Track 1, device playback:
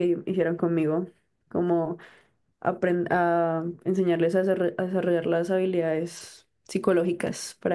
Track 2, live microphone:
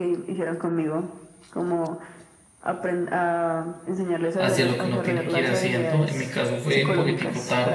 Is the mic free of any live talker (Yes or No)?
No